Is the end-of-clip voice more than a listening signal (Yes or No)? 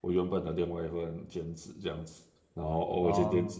No